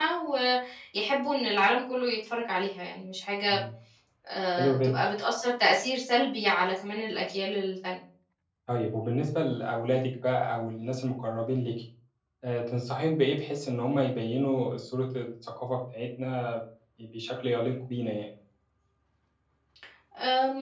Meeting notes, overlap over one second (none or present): none